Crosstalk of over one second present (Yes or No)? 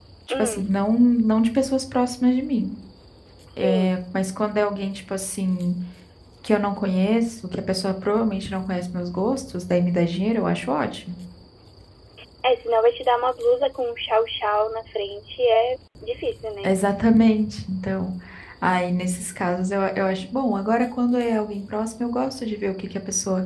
No